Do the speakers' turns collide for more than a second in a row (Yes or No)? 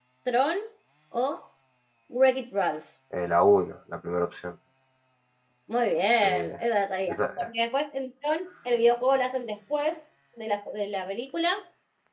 No